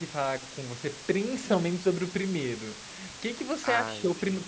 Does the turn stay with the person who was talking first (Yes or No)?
Yes